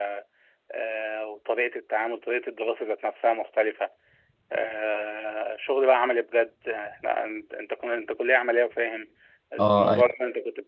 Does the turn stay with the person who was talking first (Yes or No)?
Yes